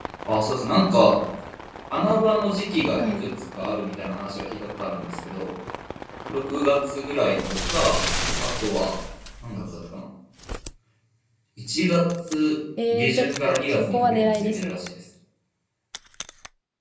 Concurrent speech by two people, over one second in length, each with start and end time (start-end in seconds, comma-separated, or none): 12.9-14.8